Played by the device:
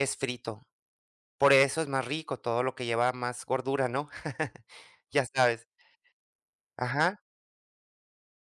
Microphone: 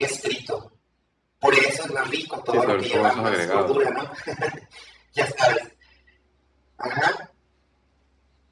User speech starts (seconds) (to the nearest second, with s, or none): 2 s